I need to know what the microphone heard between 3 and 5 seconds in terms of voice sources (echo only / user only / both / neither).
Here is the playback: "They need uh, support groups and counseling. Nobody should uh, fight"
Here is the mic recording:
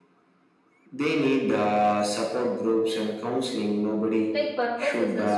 both